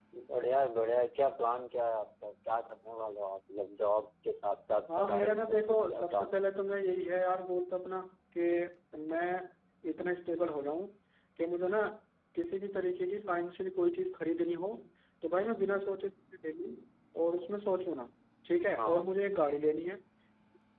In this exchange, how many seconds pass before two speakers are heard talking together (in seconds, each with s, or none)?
4.9 s